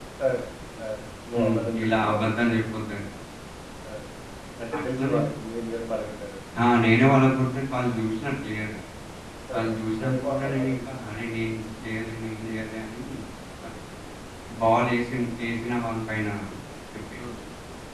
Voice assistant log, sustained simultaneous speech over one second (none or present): present